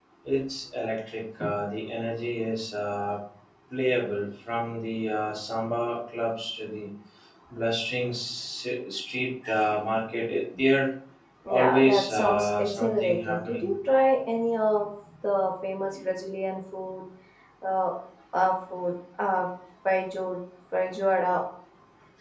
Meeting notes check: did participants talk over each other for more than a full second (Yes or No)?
Yes